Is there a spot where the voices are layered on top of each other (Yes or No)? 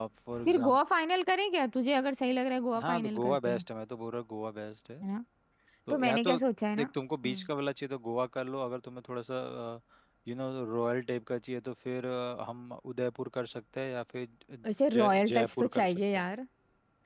Yes